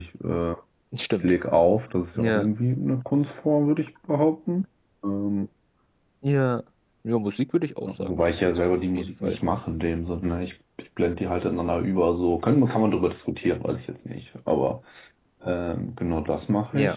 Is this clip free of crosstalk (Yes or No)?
No